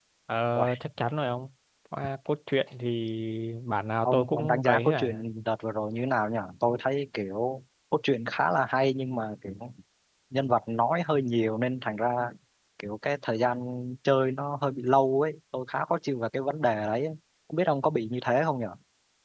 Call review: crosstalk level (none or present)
present